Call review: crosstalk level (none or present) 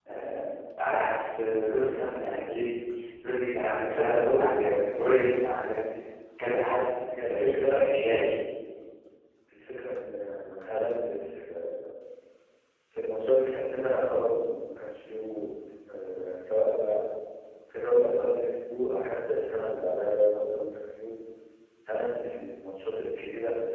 present